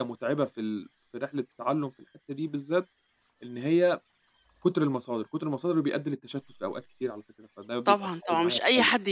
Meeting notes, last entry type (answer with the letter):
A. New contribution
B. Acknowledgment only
A